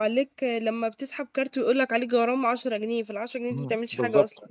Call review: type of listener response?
taking over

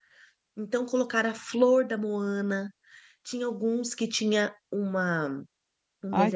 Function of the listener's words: taking over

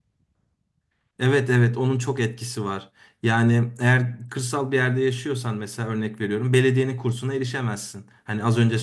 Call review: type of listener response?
listening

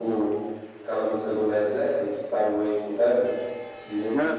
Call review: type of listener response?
listening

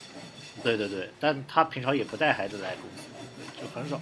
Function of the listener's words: listening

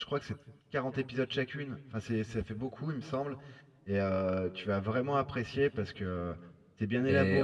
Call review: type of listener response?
taking over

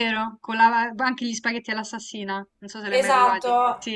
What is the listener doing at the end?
taking over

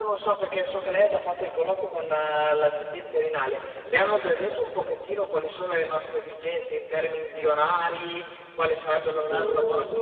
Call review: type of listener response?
taking over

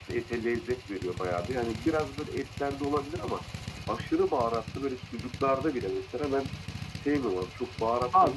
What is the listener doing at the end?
taking over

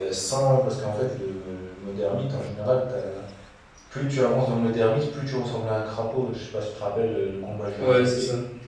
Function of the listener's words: taking over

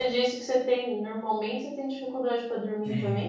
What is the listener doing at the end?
taking over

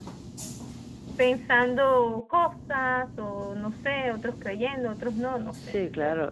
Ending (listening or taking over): taking over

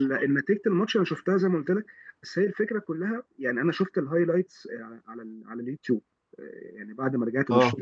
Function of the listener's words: listening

